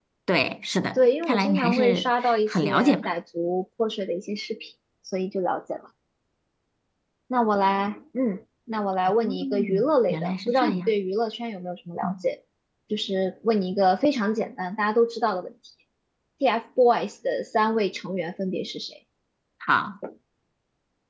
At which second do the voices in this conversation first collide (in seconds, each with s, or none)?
1.0 s